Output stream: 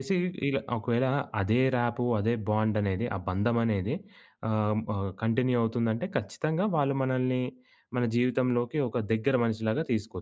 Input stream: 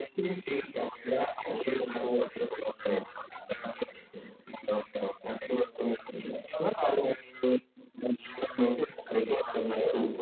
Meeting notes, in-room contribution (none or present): none